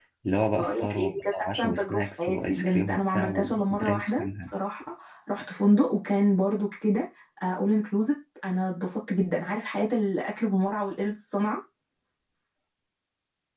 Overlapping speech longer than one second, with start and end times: 0.5-4.5

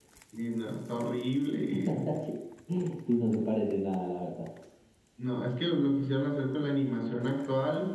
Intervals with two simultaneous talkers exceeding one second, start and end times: none

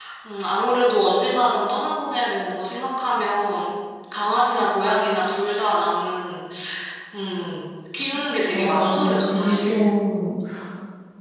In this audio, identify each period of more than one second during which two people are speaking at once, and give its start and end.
8.5-9.8

